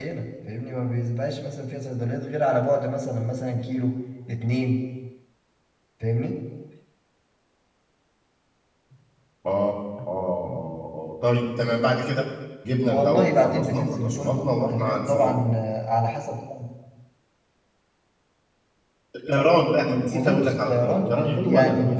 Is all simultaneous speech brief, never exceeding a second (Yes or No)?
No